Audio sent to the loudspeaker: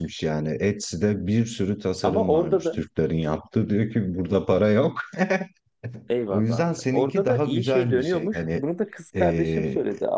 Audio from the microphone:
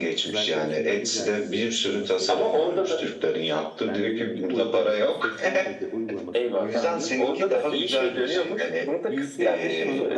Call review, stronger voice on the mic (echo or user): echo